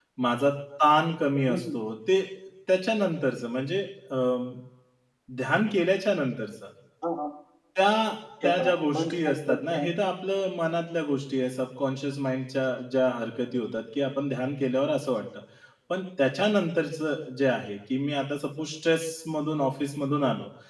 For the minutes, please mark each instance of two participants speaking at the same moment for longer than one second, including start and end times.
8.4-9.9

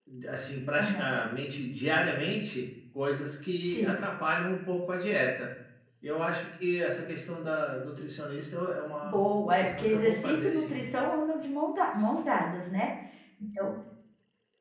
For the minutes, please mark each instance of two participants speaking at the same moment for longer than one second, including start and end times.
9.0-10.7

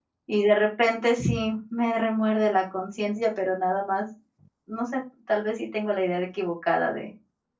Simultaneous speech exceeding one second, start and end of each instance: none

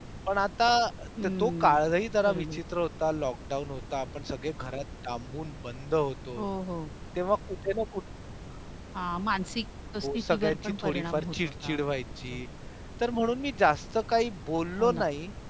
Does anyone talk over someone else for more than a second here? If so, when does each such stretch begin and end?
10.1-11.8

